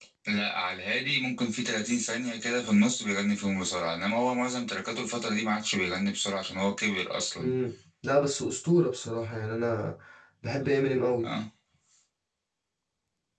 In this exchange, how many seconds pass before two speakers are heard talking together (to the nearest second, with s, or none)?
none